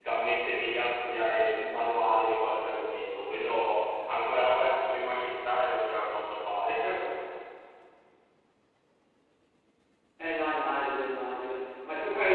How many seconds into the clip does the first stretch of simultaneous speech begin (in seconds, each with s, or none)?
none